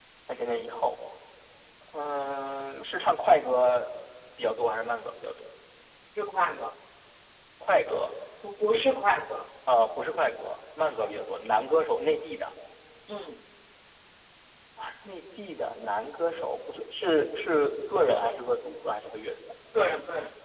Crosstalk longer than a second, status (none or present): none